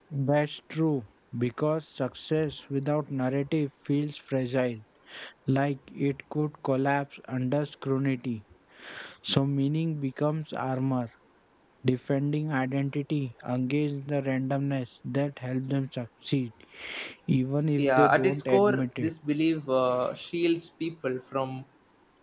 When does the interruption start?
17.8 s

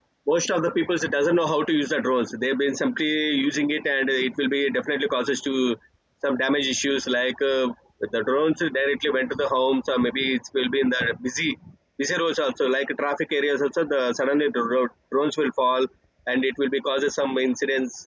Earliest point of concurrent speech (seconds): none

